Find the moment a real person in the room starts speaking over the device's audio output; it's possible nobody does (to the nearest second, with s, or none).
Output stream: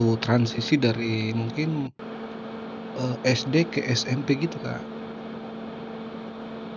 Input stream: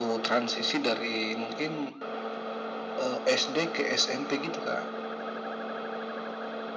none